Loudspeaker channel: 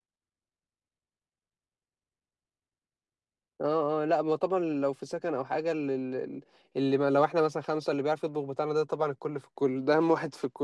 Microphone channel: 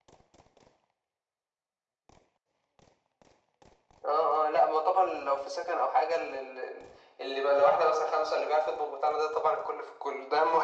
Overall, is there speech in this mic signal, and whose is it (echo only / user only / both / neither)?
echo only